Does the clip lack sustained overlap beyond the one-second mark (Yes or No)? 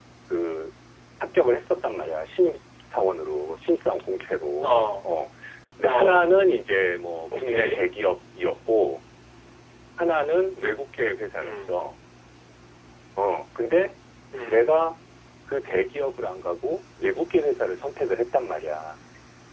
Yes